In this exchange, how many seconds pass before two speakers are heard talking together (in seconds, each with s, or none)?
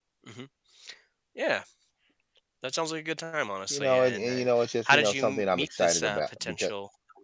3.7 s